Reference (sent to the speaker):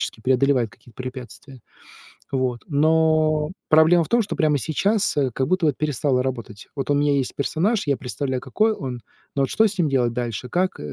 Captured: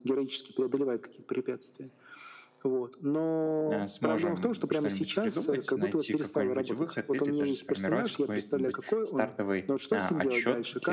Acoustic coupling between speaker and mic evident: Yes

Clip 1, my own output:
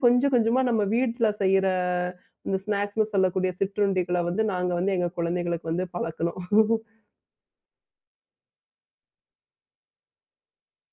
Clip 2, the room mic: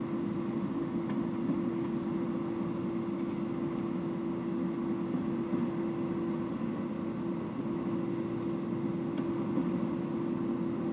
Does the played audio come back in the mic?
No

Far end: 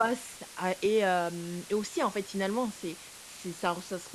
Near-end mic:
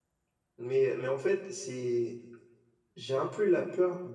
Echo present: No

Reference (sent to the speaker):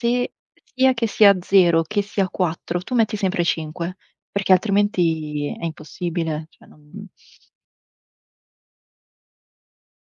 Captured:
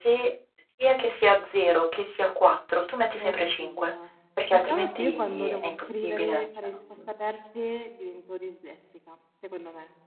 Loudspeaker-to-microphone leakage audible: Yes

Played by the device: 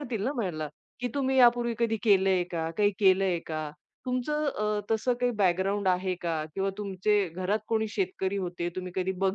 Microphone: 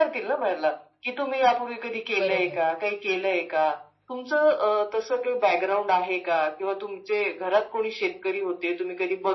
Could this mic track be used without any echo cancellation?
No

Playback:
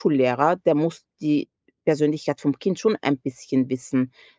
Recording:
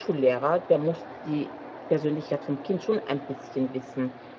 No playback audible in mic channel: No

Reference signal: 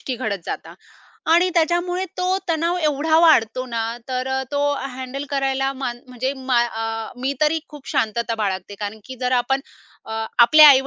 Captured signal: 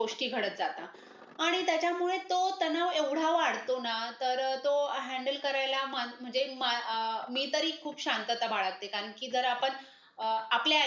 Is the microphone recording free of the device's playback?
No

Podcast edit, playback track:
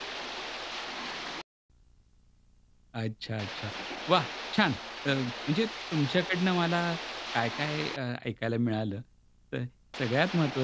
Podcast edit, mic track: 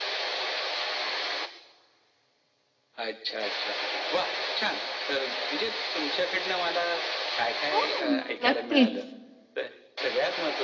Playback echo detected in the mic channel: Yes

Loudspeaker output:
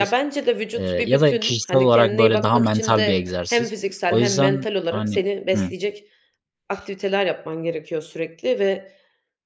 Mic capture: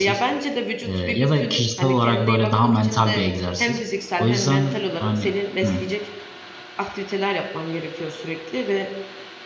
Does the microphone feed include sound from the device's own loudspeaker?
Yes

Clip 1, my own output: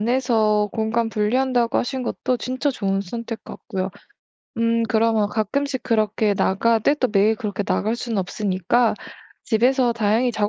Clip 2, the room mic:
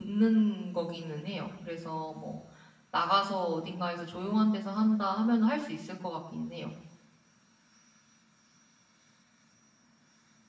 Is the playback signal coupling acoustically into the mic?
No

